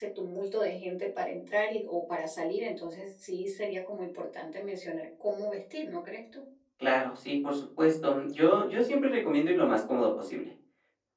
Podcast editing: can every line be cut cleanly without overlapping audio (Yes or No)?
Yes